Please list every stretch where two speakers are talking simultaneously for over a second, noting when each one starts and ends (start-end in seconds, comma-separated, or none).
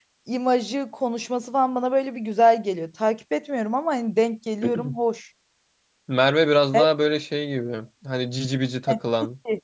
none